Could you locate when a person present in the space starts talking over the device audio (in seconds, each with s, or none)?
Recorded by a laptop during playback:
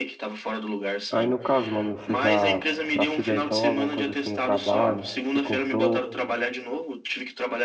1.1 s